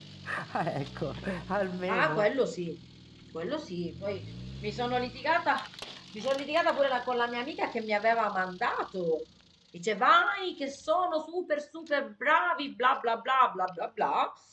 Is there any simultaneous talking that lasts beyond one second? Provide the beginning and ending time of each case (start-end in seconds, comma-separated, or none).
none